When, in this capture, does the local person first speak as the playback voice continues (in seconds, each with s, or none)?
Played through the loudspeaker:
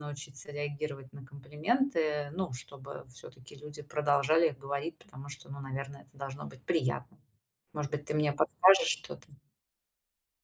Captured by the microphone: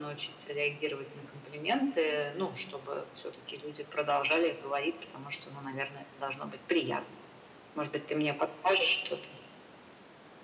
none